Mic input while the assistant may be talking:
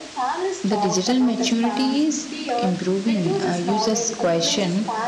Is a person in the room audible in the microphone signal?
Yes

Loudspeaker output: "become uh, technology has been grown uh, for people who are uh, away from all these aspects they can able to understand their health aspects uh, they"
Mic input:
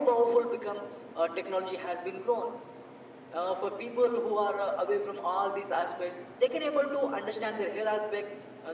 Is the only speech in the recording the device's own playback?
Yes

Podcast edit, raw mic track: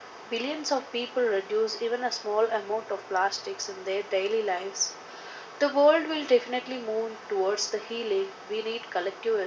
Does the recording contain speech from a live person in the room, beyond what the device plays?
No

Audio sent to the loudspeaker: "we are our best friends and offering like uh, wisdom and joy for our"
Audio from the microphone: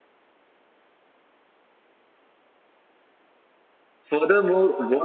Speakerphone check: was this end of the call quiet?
No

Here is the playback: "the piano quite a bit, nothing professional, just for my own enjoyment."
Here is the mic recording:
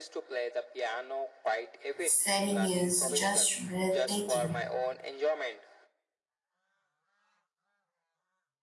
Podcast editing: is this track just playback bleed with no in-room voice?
No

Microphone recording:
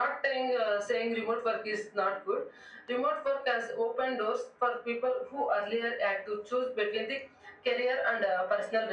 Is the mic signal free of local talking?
Yes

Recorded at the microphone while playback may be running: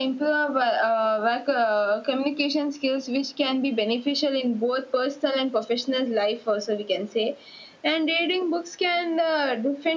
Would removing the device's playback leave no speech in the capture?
Yes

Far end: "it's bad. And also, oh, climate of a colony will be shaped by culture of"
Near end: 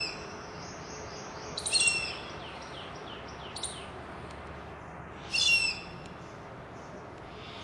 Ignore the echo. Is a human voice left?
No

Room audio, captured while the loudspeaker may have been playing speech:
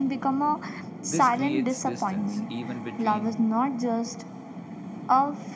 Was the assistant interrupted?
Yes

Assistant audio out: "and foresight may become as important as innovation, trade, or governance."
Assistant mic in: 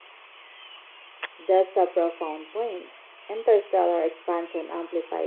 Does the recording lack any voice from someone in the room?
No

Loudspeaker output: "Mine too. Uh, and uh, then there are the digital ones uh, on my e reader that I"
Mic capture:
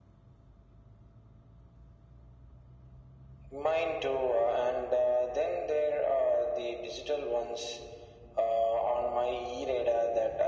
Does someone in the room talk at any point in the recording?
No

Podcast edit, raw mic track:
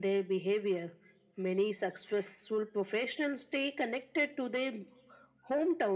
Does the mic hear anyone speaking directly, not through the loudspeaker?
No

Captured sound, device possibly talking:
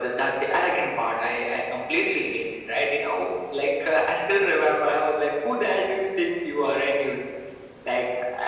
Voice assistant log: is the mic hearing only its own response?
Yes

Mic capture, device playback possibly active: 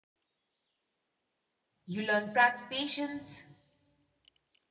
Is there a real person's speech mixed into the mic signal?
Yes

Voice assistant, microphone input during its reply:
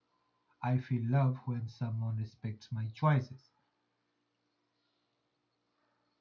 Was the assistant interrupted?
Yes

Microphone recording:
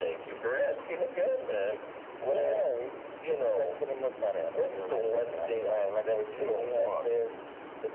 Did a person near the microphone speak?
No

